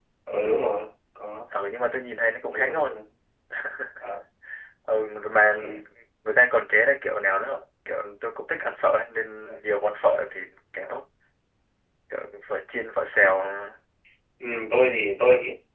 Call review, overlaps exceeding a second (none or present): none